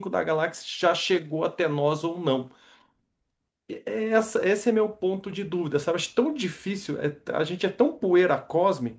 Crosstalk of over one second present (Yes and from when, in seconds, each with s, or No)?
No